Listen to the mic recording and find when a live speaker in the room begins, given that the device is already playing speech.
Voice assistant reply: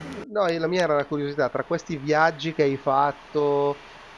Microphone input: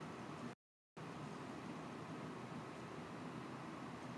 none

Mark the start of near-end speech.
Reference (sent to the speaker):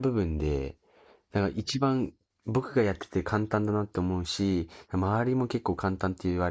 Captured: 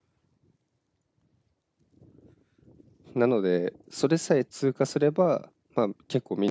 3.2 s

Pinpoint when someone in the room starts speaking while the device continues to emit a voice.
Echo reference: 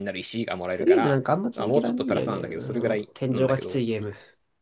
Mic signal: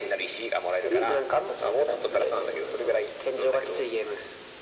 none

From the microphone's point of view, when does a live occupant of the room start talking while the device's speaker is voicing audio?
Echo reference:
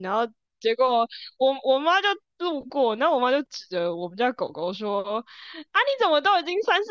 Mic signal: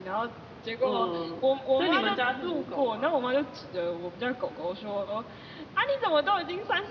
0.8 s

